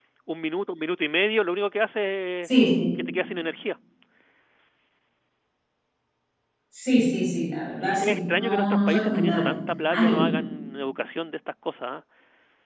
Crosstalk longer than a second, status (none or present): present